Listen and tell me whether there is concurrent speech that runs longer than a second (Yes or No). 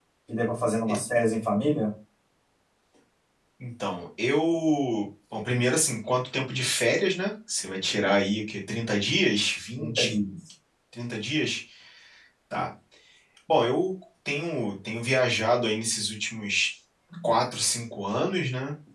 No